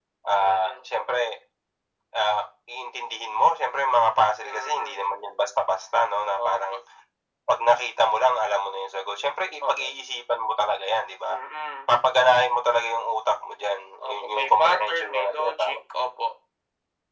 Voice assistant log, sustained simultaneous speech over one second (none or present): present